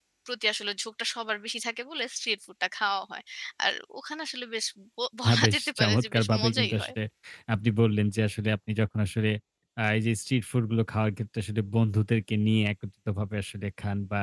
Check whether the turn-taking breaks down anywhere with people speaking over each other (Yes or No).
Yes